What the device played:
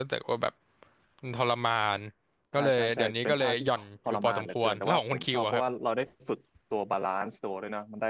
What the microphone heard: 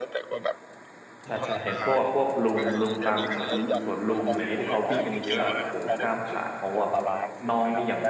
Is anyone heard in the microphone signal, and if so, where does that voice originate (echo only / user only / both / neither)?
both